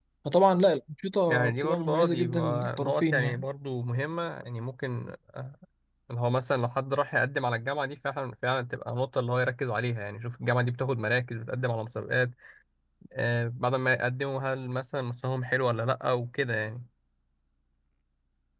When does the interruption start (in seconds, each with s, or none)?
1.3 s